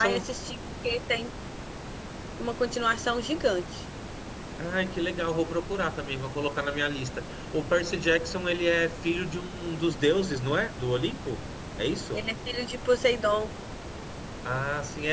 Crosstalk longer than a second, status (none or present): none